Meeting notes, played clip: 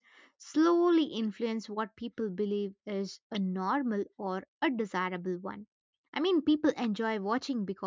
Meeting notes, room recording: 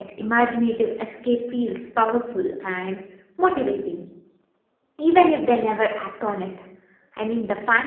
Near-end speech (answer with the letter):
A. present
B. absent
A